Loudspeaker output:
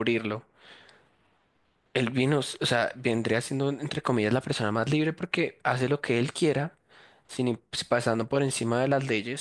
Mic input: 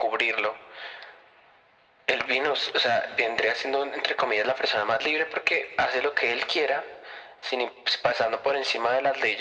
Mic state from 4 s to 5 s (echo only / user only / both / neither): echo only